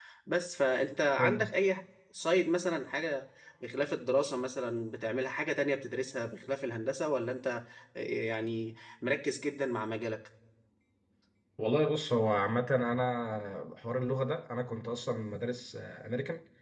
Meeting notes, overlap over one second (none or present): none